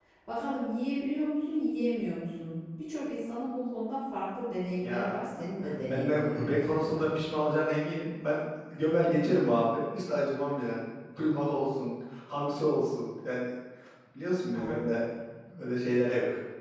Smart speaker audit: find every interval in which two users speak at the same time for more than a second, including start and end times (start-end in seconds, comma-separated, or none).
5.9-7.2